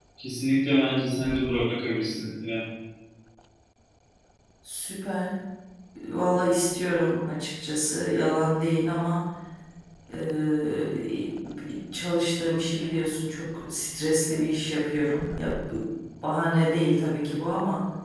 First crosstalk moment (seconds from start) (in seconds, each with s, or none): none